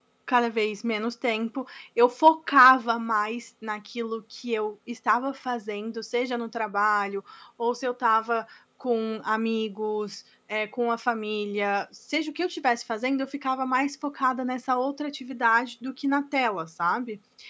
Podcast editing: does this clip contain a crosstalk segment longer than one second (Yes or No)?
No